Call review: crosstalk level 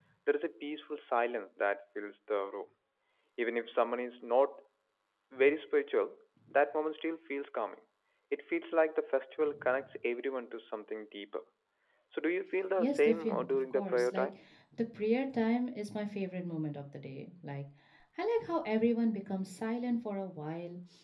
present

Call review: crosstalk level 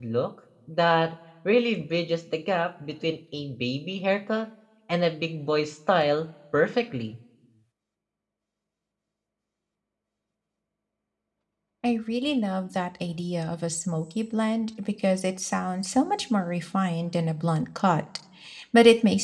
none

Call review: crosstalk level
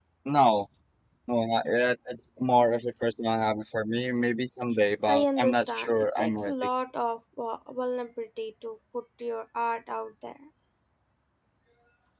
present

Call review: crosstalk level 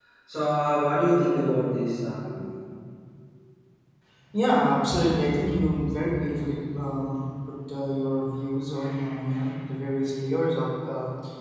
none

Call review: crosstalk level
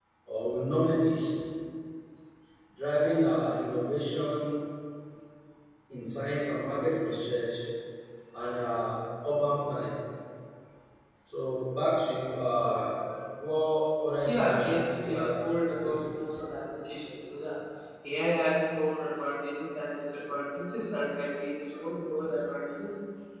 present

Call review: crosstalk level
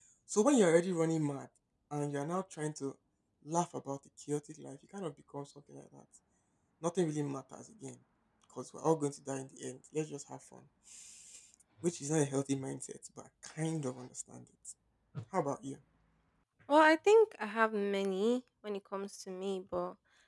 none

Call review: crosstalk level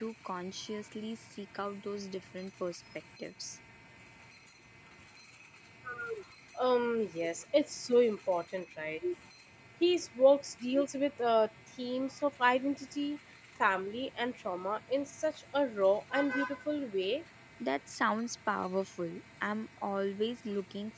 none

